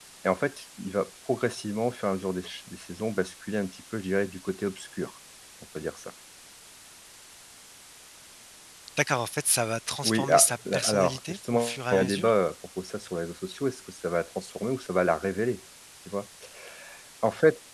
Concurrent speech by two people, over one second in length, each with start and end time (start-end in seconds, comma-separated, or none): 10.0-12.3